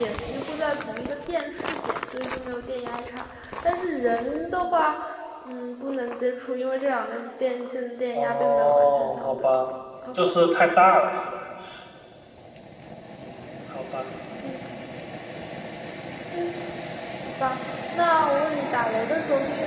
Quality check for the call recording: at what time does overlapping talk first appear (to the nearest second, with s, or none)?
8 s